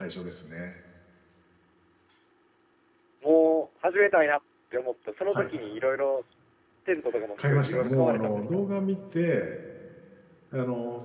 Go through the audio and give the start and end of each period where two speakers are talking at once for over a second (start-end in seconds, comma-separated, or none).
7.4-8.6